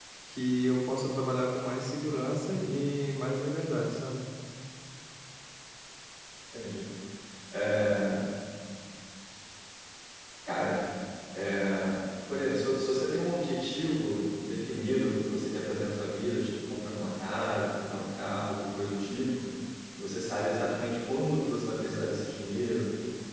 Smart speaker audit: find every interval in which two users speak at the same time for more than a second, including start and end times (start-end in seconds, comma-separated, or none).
none